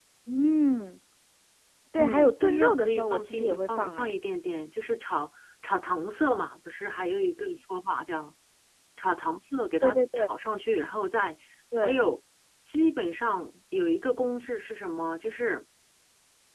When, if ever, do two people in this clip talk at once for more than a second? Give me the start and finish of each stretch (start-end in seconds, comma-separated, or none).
2.0-4.1